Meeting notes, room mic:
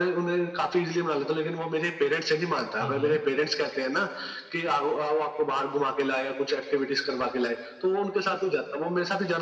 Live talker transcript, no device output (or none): हुँ, हुँ।